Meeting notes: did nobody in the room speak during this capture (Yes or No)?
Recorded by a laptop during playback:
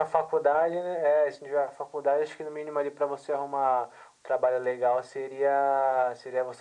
Yes